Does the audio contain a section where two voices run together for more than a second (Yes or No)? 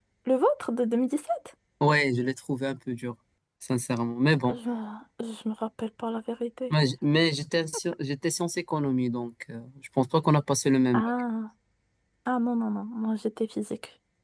No